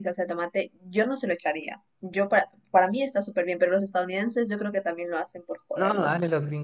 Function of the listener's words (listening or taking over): taking over